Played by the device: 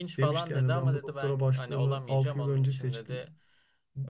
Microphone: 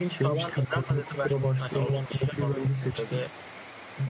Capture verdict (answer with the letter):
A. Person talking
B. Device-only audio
B